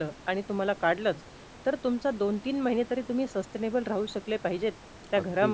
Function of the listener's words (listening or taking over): taking over